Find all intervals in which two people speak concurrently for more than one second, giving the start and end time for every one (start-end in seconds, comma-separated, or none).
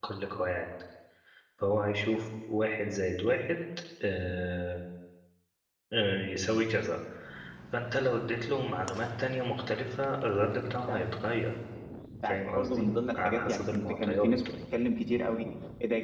12.2-14.3